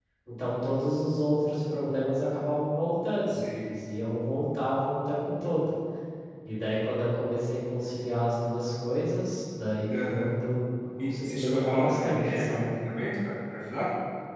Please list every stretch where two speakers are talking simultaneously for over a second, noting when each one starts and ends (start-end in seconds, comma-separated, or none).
11.0-12.7